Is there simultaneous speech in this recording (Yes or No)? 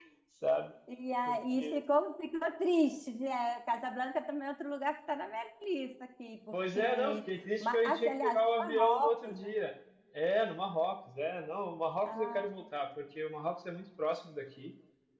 Yes